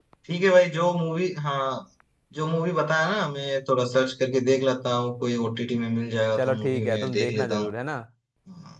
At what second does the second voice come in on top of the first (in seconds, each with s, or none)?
6.4 s